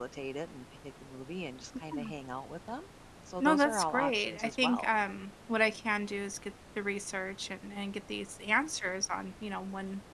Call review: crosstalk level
present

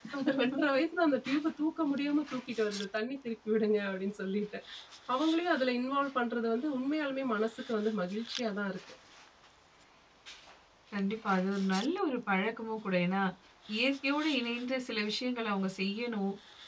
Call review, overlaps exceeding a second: none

